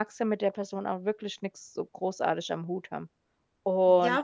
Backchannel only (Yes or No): No